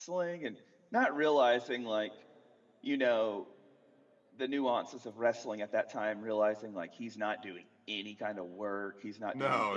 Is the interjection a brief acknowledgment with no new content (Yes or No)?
No